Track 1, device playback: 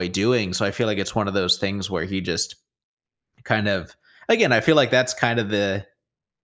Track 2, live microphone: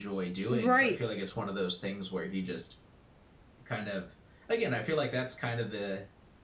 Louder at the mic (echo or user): user